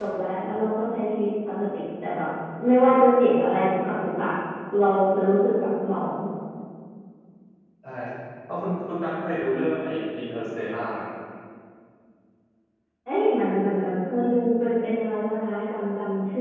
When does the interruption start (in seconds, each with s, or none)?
none